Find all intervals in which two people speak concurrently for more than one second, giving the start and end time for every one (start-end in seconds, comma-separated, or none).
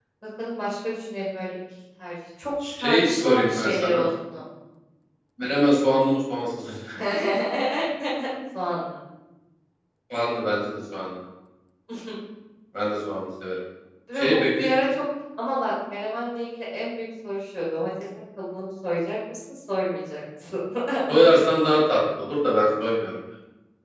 2.8-4.0